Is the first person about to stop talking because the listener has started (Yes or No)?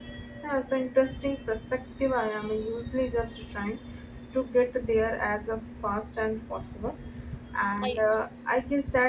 No